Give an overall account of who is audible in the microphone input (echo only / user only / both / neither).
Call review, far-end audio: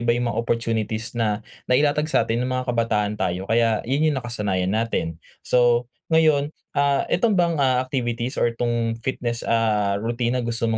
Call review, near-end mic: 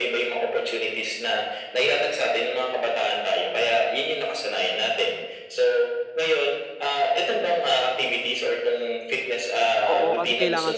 both